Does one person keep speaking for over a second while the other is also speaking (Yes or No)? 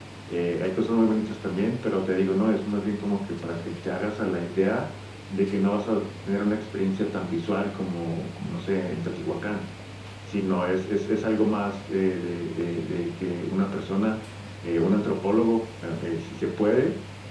No